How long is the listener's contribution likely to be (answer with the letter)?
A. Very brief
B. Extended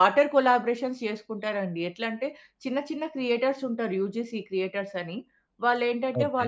A